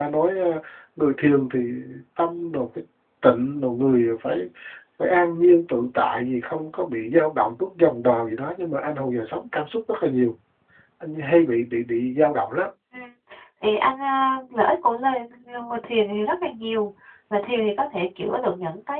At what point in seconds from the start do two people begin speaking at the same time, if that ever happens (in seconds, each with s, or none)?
none